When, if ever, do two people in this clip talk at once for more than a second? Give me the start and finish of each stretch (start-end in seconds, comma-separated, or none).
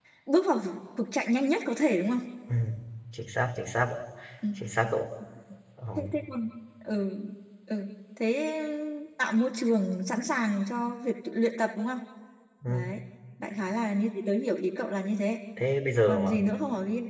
none